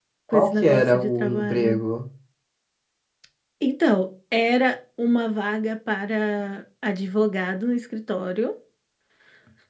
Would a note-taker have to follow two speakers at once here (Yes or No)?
Yes